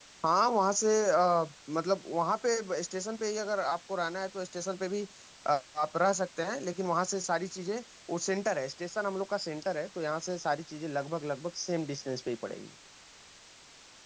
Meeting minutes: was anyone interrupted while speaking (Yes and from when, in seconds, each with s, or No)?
No